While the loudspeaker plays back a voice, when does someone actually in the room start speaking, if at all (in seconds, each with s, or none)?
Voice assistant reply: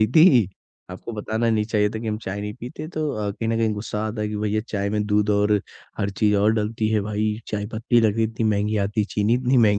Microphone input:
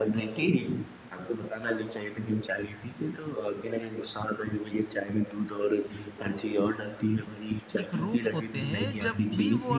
7.8 s